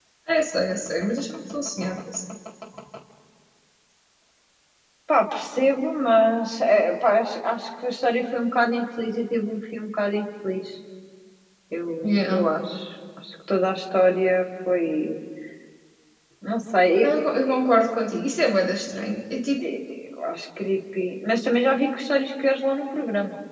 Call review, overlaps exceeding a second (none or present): none